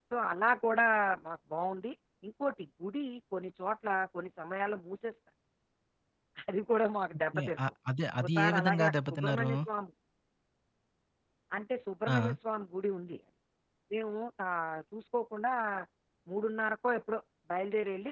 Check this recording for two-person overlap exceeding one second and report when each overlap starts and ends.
8.2-9.5

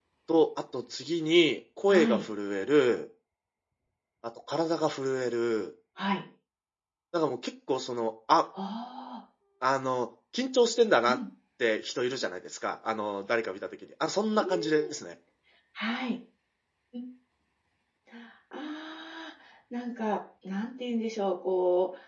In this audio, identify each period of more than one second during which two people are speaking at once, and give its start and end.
none

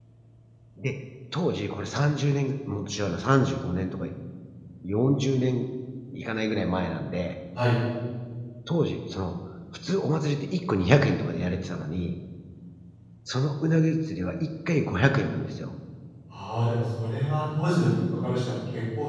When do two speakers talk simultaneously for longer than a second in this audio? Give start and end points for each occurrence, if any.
none

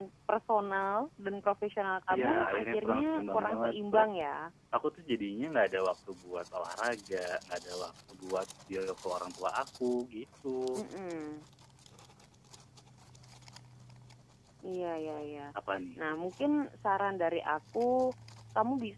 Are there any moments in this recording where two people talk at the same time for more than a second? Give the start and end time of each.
2.1-4.1

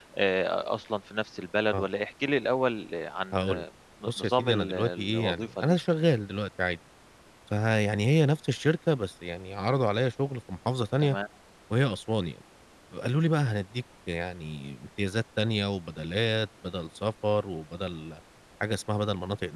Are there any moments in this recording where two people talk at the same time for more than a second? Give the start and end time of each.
4.1-5.8

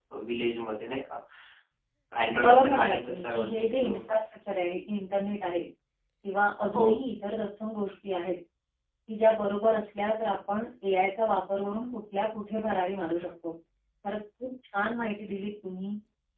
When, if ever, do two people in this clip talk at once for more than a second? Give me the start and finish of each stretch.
2.4-4.2

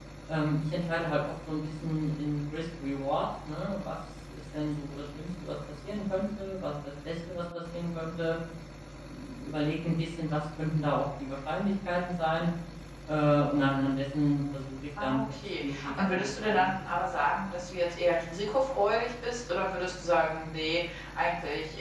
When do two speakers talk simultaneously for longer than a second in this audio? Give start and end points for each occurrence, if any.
15.0-16.7

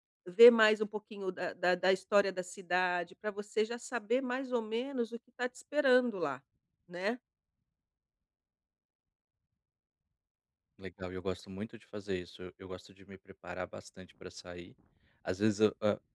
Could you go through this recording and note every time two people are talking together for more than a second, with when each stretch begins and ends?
none

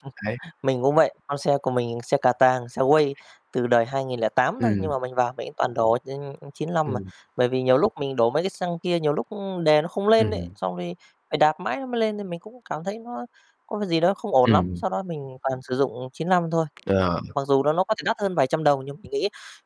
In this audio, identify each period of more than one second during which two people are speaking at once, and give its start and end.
none

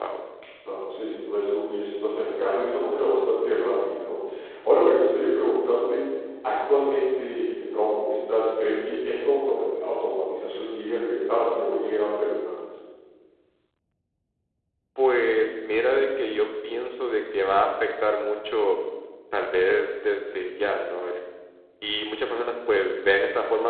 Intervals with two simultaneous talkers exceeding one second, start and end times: none

